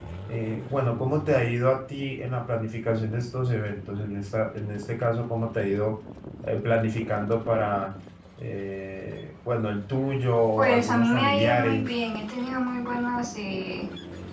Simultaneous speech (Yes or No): Yes